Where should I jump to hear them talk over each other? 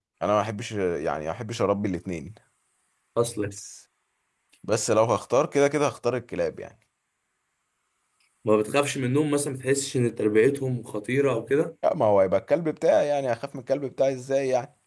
none

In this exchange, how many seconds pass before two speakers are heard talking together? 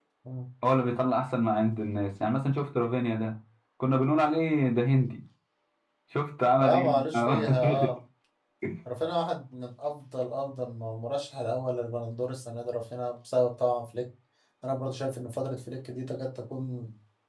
6.6 s

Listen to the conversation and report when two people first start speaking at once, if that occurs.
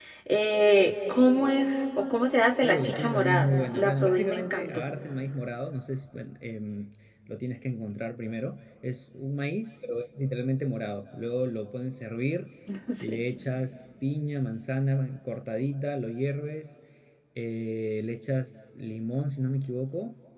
2.6 s

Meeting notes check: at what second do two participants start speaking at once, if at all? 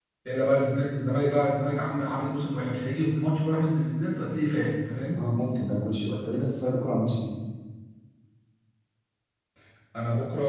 none

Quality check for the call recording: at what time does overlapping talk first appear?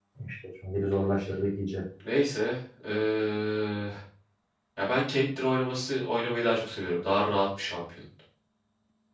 none

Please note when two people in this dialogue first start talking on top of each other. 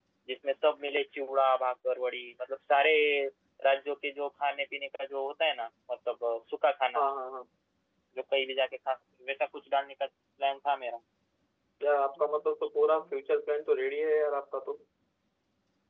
none

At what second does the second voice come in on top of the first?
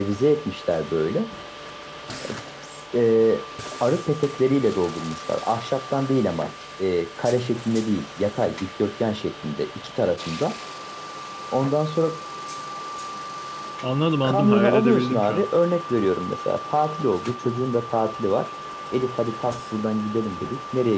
14.2 s

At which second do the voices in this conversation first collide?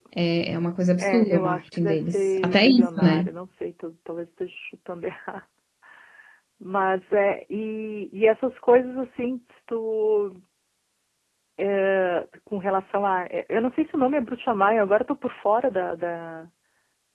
1.0 s

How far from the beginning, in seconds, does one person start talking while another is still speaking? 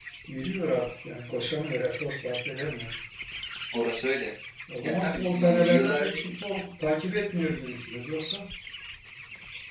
4.8 s

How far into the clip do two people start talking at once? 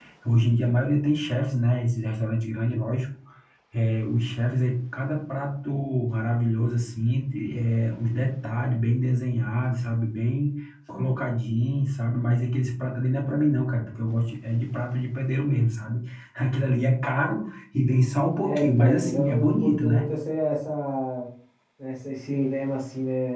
18.4 s

